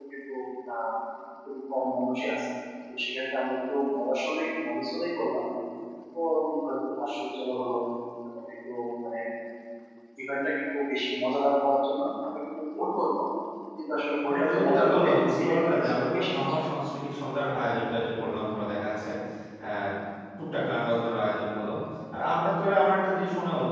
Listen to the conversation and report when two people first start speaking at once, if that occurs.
14 s

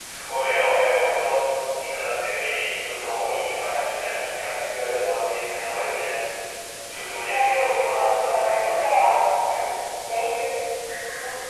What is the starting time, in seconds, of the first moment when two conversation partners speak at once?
7 s

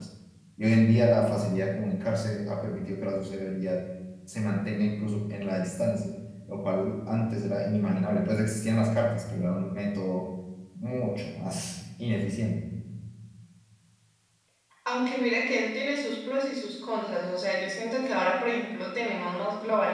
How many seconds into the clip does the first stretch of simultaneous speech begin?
none

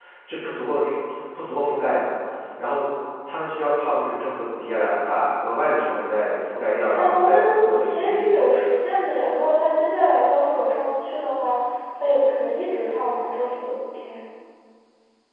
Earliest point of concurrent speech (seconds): 7 s

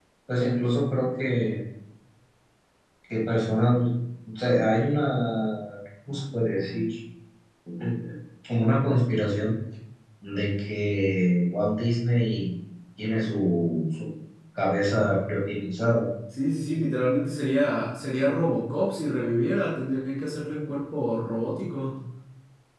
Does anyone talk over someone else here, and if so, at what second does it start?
none

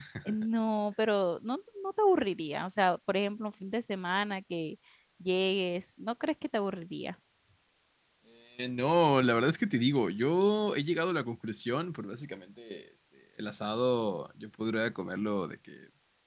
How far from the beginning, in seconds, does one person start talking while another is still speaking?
none

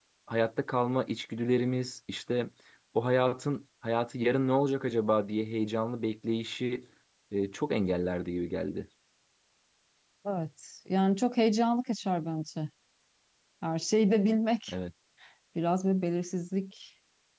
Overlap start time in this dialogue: none

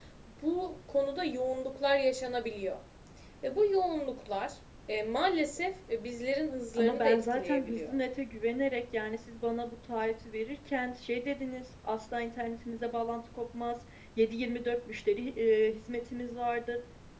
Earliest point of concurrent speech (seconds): 7 s

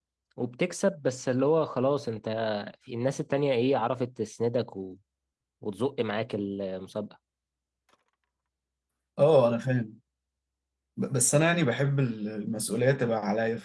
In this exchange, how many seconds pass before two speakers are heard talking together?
none

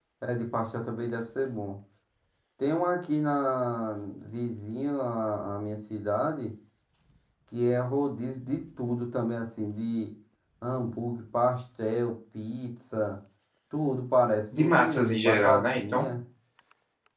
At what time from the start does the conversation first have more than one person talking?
15 s

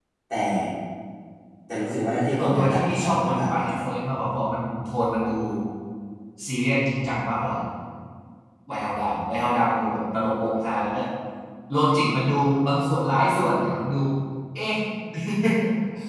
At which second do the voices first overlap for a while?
2 s

